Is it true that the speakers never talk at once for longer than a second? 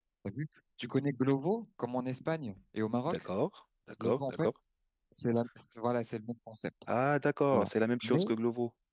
Yes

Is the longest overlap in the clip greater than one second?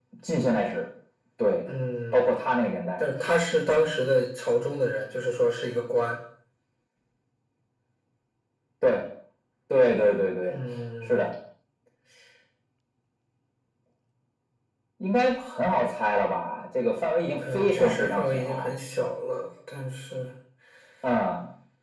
Yes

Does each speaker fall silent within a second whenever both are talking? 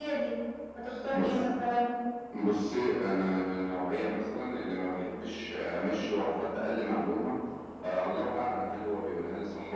Yes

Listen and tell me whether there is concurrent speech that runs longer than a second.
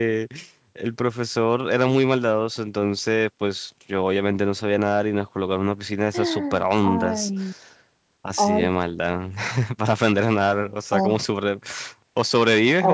No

